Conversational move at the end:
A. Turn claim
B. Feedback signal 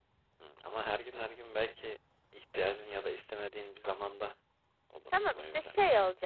A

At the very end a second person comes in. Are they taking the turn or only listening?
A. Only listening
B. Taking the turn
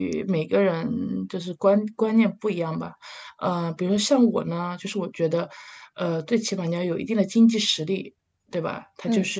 A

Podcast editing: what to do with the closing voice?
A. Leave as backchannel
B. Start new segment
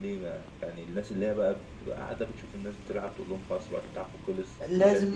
B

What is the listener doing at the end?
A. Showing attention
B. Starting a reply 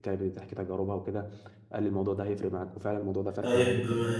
B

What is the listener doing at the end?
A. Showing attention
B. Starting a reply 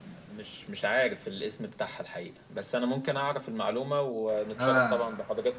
B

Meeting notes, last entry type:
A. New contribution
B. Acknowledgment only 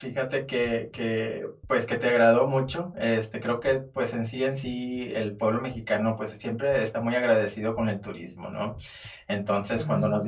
B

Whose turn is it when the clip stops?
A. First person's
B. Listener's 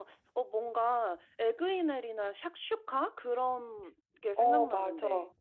B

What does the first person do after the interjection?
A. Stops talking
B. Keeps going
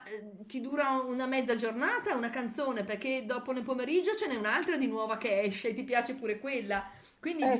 B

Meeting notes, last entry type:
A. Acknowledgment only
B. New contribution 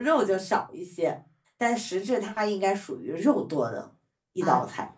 B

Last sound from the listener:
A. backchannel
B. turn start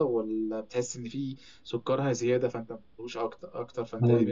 B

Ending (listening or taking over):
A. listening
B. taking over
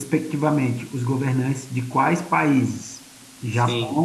A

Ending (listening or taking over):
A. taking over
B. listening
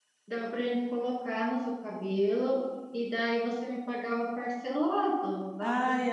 A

